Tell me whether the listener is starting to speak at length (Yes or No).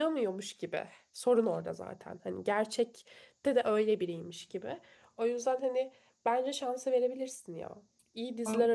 No